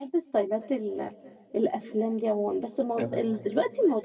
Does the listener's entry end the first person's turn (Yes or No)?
No